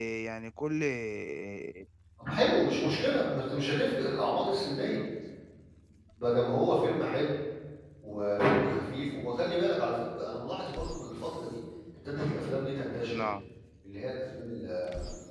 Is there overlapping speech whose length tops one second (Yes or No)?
No